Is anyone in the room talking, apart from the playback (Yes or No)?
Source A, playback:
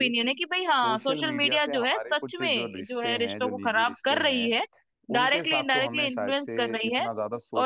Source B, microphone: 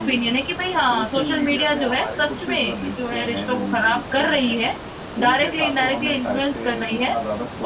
No